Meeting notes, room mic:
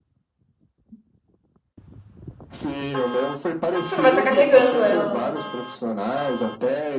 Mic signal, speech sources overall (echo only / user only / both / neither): both